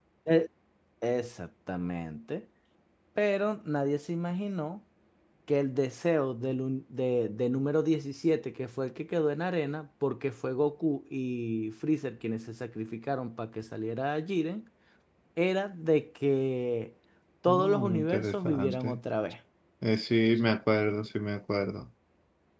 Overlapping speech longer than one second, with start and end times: 17.5-19.0

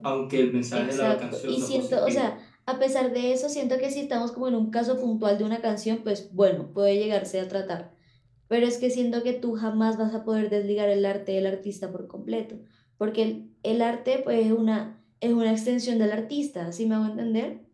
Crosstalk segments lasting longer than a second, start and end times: 0.8-2.2

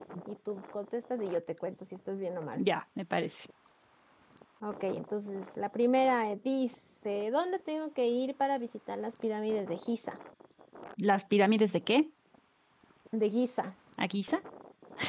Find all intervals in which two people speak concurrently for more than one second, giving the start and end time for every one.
none

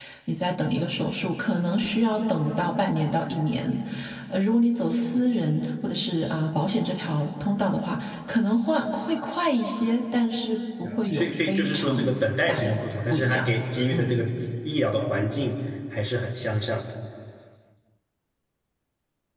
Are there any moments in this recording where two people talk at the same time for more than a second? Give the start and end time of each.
10.8-12.1

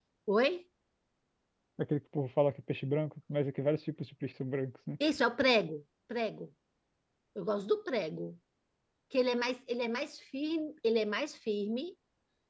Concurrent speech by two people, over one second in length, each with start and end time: none

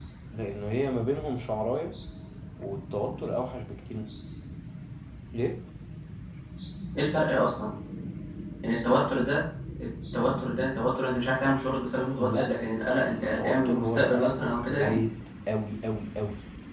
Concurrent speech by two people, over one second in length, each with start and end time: 13.0-15.0

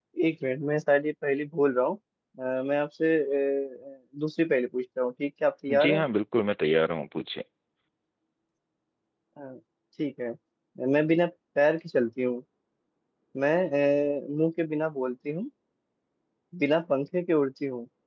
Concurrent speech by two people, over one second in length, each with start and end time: none

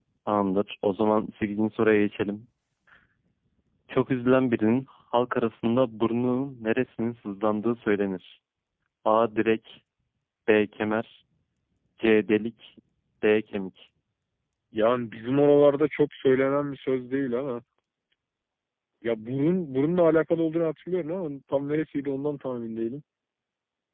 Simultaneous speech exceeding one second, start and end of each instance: none

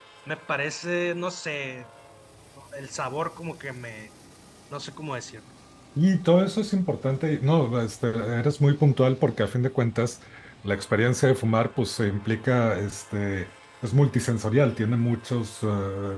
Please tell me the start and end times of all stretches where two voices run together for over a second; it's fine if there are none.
none

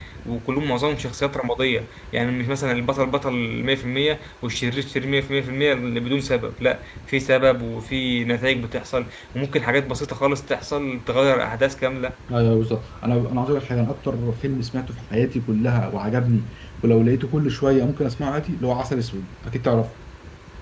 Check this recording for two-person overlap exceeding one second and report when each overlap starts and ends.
none

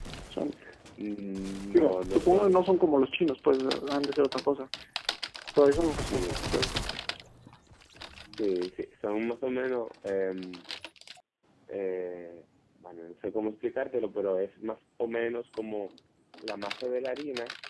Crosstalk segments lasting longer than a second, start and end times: 1.7-3.1

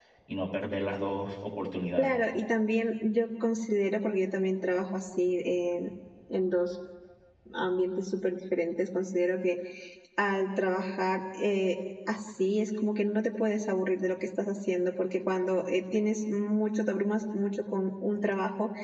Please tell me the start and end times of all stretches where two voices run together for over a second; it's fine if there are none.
none

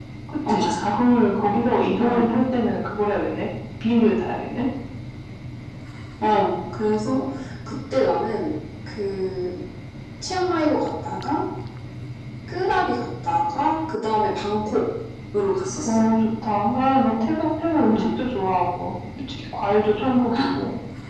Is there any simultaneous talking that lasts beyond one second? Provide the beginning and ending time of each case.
none

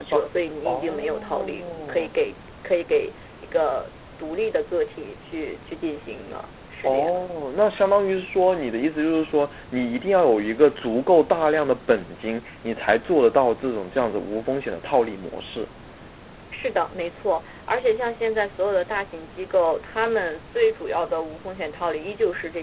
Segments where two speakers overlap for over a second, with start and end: 0.6-2.1

